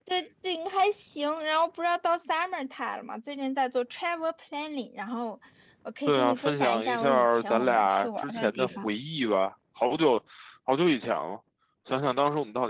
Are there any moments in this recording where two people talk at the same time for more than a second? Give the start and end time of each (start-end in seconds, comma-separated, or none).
6.1-8.9